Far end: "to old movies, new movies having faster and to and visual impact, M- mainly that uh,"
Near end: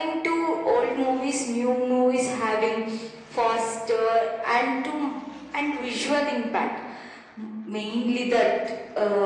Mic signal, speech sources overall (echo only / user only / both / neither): echo only